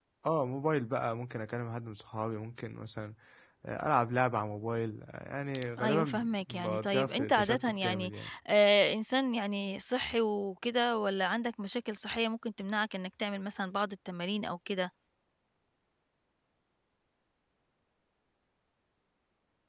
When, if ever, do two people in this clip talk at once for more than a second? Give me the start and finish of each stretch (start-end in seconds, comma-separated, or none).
5.8-8.1